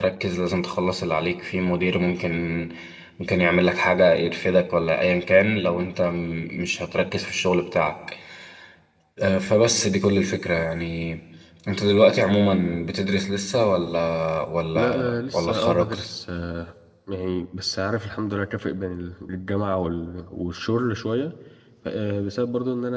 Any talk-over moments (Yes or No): Yes